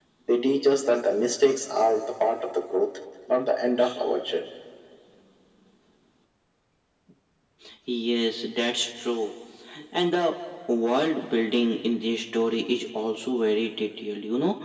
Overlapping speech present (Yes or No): No